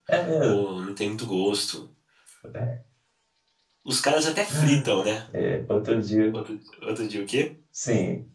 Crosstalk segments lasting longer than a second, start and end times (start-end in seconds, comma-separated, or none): none